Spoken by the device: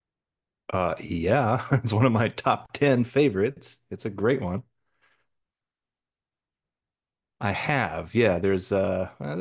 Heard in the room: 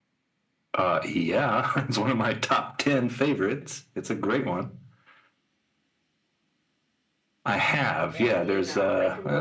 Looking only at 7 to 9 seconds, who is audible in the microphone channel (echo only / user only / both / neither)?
both